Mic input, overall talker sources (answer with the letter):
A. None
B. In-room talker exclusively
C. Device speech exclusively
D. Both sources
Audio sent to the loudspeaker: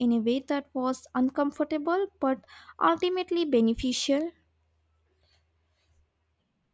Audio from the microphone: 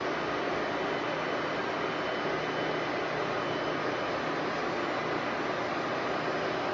A